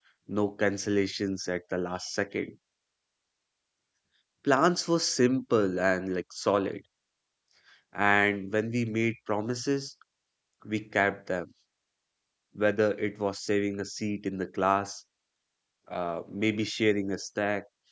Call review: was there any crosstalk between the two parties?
No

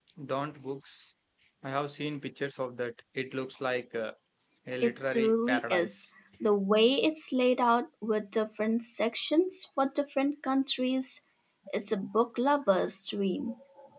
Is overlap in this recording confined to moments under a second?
No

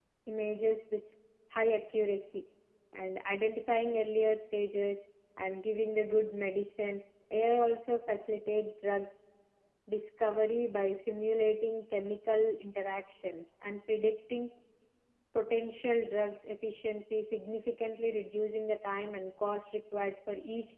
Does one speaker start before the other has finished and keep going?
No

